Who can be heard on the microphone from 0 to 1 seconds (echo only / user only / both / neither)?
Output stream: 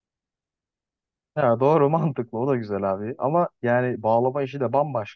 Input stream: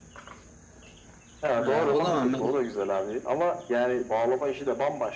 neither